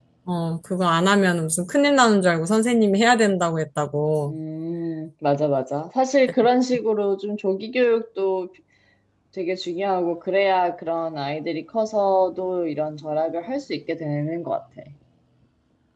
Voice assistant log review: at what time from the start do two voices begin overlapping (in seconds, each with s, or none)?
none